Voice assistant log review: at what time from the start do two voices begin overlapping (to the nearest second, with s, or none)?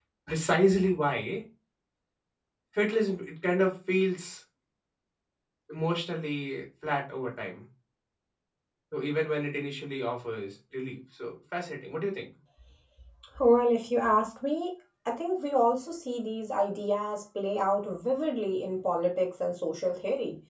none